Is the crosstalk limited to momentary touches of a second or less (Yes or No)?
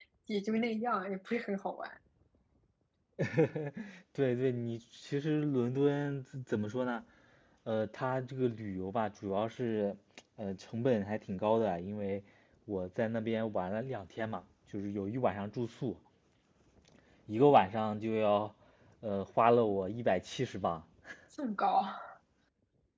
Yes